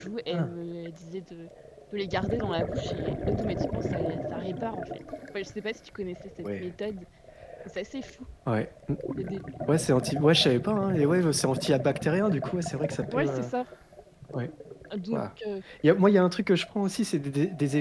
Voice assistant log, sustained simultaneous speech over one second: none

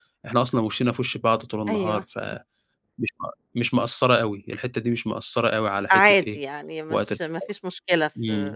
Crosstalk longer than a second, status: none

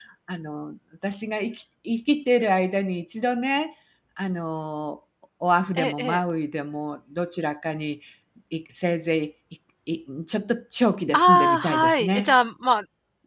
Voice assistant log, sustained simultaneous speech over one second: present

